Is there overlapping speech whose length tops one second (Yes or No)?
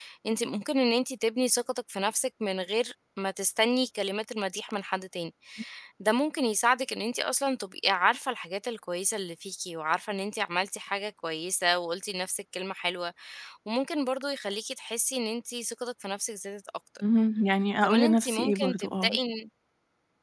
Yes